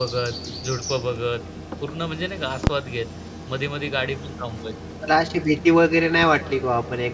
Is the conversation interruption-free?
Yes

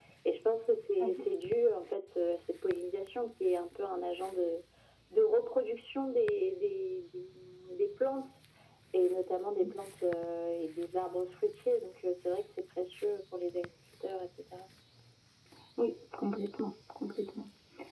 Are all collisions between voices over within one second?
Yes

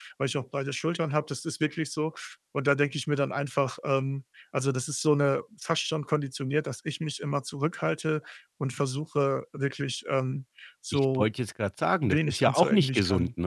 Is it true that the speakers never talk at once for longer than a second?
No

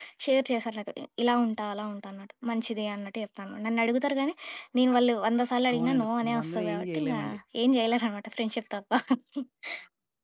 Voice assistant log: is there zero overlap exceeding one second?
No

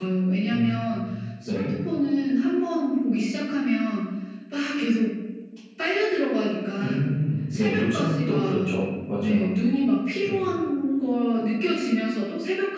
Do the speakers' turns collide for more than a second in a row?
Yes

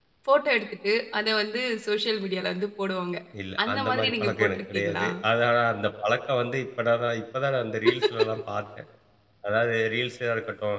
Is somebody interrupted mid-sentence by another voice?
Yes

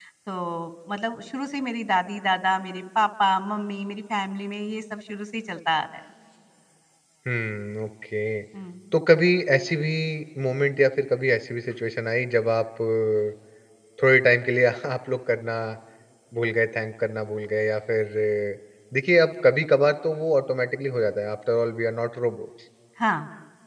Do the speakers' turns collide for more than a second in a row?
No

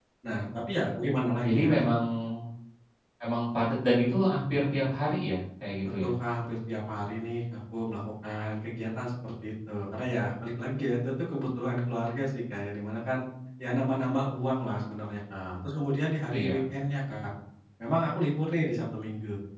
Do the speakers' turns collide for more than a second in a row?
No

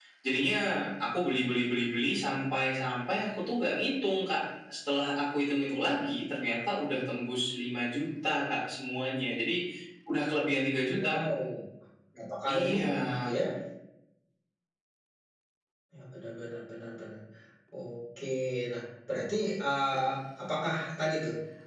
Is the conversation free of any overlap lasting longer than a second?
Yes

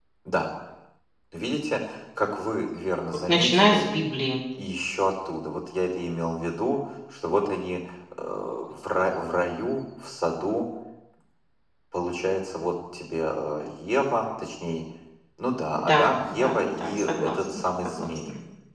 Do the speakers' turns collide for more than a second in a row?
Yes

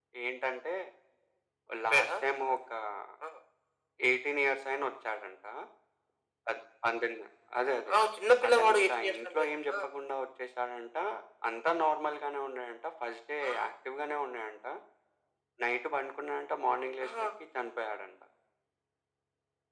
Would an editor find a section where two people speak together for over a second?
Yes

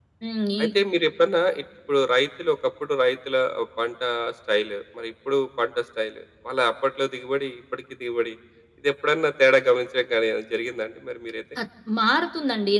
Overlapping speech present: No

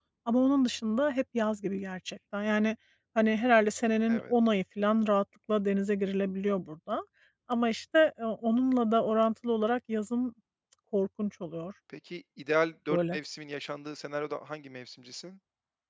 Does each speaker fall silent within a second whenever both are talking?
Yes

